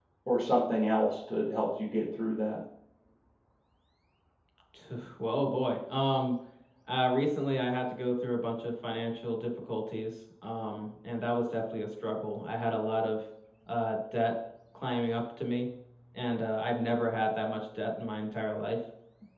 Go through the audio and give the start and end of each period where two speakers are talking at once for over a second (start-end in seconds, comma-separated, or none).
none